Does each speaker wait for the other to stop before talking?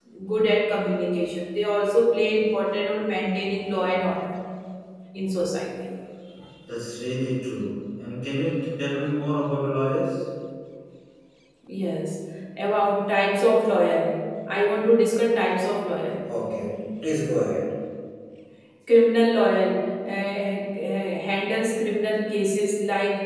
Yes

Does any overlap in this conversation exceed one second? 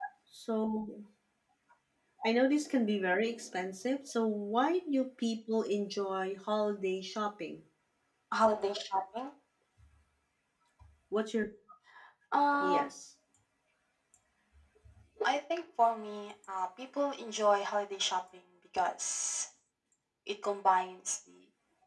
No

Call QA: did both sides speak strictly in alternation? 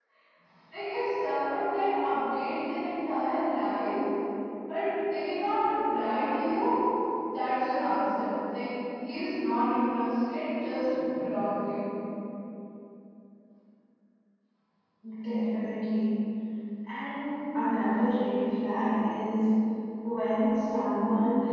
Yes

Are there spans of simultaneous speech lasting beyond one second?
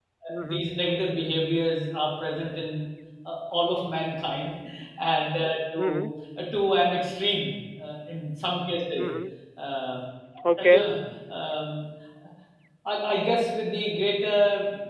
No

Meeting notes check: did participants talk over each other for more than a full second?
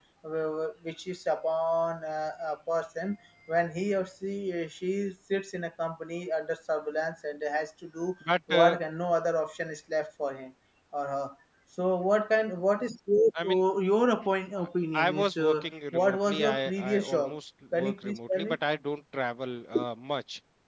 Yes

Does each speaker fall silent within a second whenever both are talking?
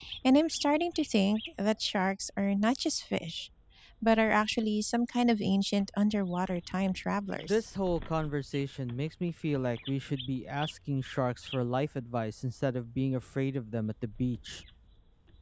Yes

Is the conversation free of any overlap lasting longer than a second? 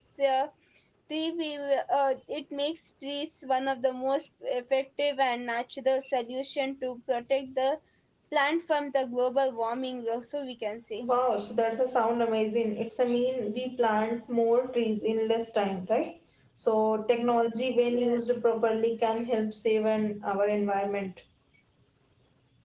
Yes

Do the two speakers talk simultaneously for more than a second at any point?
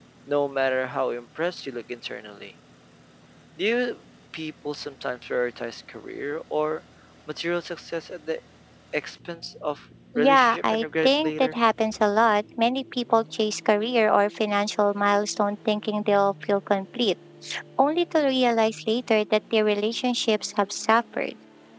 Yes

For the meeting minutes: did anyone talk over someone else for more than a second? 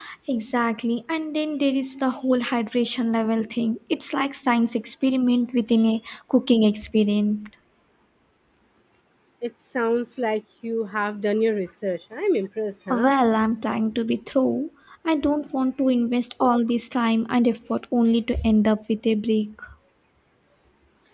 No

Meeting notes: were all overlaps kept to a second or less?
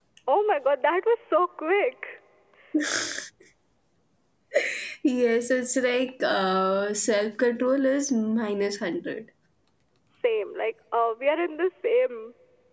Yes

